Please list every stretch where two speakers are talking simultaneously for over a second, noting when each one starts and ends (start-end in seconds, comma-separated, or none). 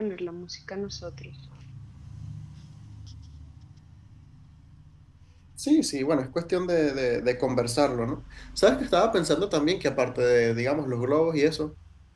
none